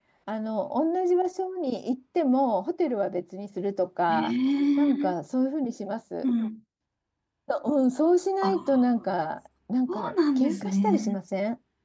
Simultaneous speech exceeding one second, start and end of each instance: 9.9-11.2

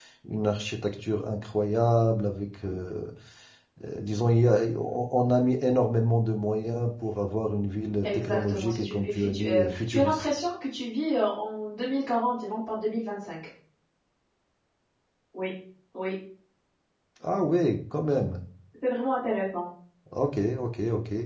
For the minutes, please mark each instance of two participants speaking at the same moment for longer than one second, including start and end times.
8.0-10.3

